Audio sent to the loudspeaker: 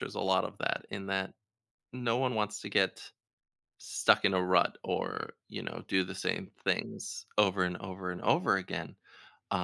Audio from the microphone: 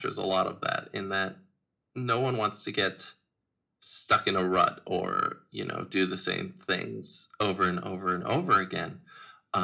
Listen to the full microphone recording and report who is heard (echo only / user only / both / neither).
echo only